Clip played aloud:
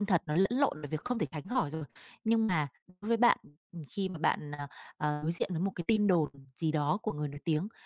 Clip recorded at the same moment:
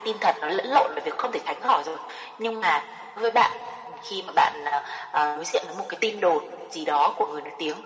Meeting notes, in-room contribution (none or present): none